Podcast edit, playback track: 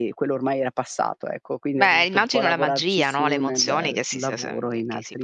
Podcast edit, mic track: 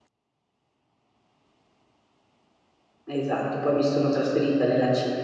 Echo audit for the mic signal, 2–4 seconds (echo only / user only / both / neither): user only